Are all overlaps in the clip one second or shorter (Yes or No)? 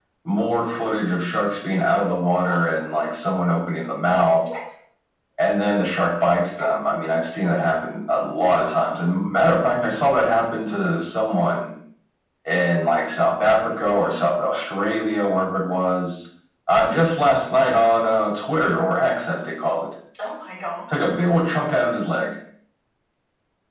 Yes